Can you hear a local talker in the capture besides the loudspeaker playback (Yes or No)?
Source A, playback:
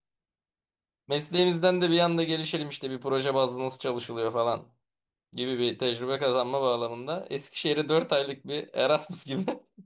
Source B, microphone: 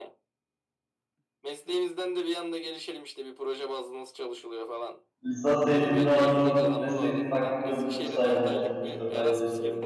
Yes